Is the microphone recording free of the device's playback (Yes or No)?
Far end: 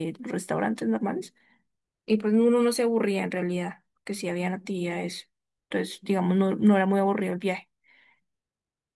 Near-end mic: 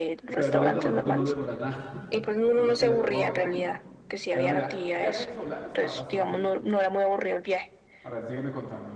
No